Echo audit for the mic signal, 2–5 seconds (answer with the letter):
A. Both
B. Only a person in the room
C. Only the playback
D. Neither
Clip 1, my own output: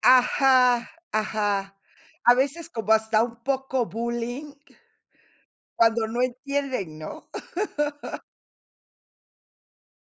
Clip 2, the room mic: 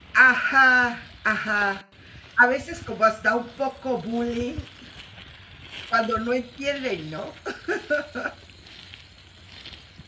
C